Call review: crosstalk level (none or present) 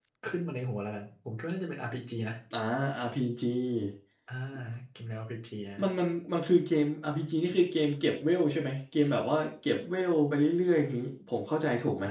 none